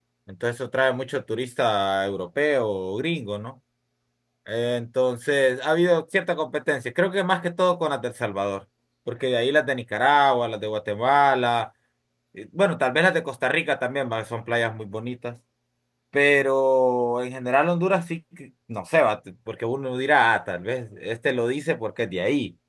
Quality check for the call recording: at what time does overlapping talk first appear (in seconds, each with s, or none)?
none